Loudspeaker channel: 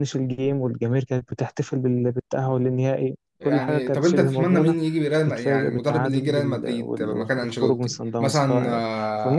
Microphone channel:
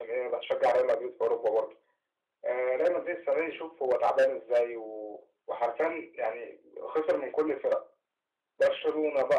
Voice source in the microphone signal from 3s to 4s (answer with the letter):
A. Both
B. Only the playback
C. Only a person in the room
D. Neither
C